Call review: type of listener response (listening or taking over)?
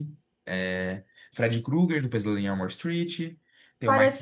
taking over